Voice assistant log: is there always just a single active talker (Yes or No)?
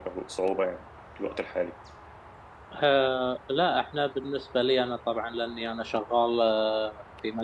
Yes